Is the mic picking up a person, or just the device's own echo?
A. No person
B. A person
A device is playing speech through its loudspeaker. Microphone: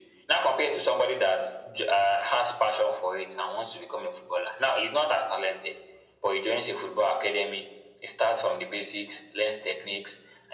A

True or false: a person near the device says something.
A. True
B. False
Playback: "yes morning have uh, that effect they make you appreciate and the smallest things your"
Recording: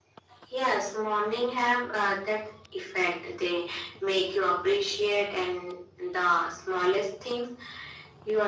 B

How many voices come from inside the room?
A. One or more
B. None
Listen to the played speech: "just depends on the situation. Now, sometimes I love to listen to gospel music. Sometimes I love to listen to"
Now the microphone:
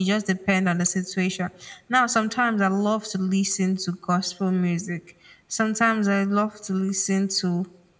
B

